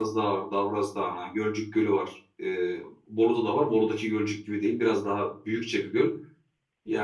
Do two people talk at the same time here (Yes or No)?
No